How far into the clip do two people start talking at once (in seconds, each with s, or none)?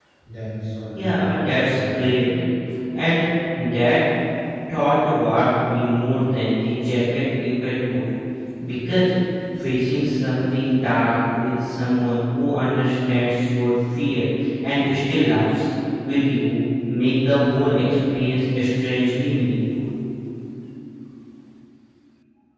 0.9 s